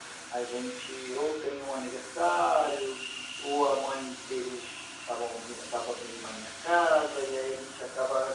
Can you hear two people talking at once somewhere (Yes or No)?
No